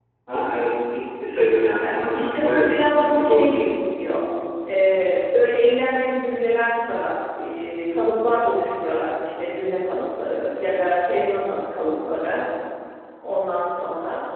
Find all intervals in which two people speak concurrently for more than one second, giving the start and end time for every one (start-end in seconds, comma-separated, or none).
1.8-3.7